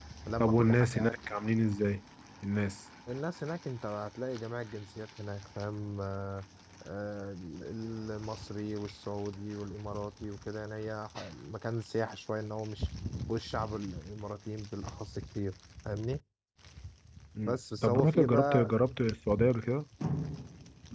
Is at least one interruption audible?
Yes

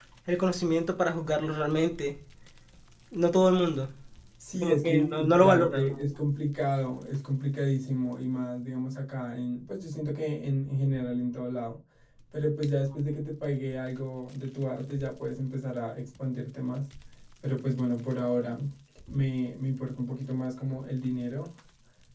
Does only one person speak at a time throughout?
No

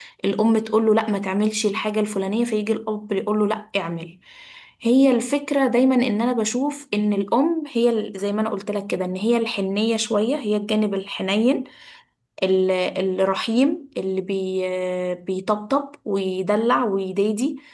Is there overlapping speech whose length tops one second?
No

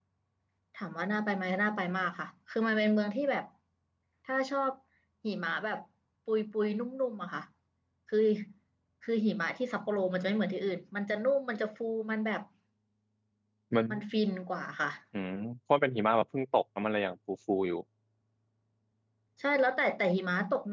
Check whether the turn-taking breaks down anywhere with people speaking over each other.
No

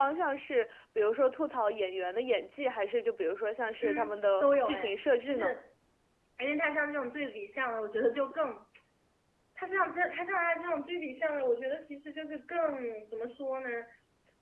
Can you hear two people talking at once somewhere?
Yes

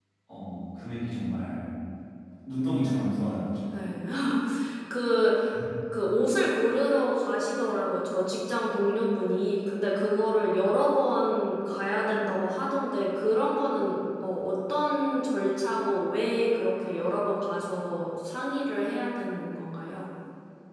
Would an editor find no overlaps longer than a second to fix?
Yes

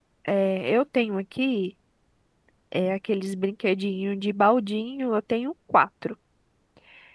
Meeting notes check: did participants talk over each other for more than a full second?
No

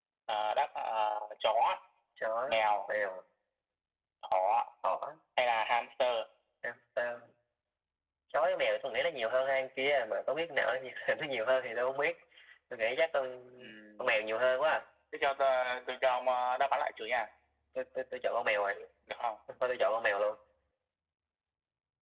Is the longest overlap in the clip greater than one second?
No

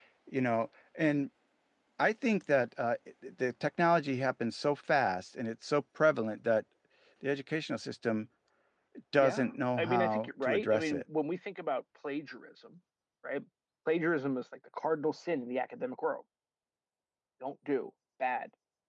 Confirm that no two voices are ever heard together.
No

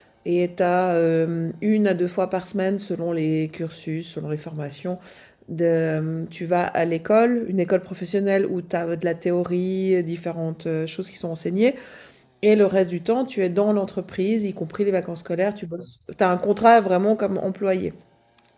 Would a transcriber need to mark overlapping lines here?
No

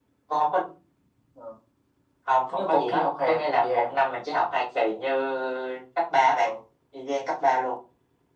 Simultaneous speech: Yes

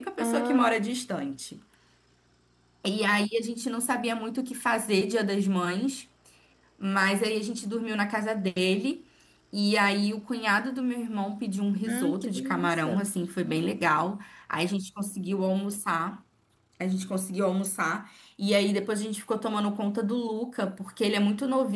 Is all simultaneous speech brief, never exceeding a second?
No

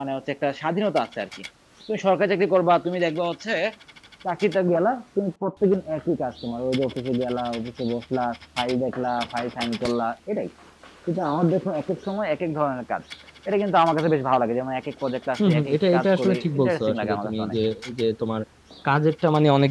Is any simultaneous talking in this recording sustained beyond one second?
Yes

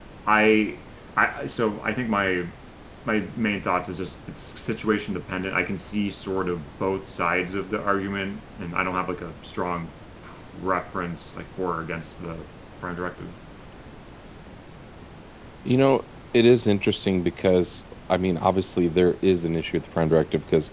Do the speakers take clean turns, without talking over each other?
Yes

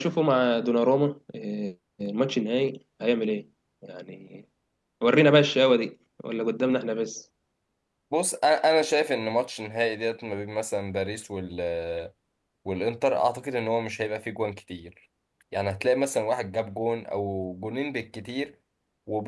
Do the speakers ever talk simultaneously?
No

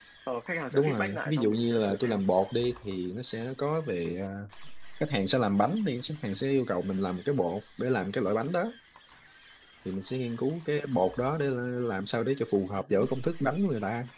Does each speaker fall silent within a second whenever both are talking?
No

